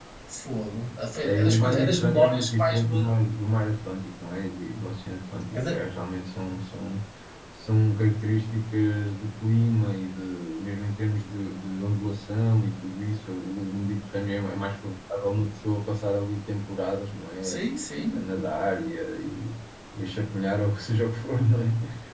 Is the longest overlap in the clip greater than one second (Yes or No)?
Yes